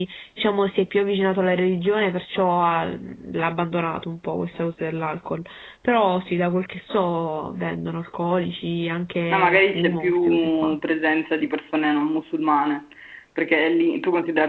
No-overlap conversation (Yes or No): No